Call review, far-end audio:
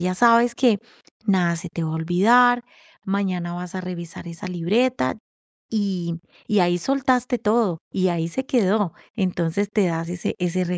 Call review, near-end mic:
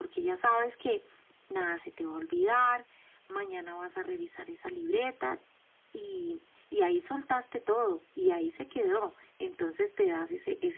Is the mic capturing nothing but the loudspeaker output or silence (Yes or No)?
Yes